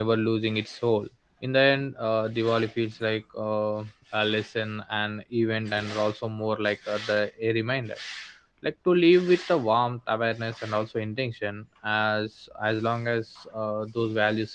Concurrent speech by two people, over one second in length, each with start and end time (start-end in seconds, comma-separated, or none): none